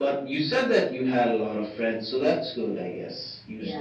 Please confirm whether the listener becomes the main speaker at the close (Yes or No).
Yes